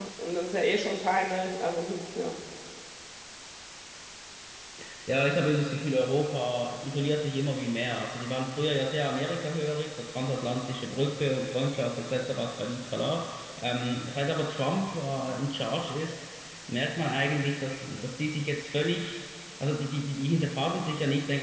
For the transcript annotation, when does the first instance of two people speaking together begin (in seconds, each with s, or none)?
none